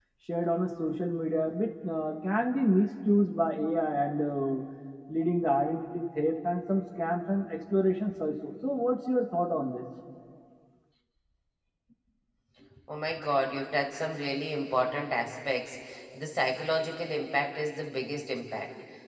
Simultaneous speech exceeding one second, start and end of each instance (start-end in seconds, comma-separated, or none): none